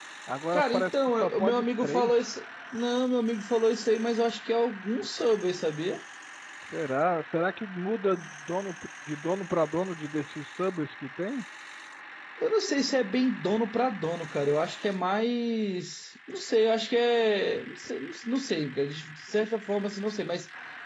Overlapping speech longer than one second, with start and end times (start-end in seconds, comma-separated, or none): 0.5-2.3